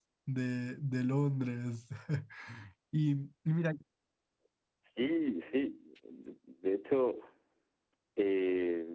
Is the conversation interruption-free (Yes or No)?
Yes